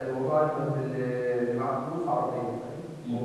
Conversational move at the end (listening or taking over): taking over